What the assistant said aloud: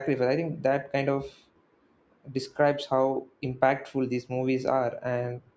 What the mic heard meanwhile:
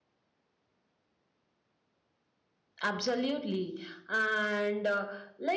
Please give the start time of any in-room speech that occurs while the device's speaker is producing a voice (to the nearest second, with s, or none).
3 s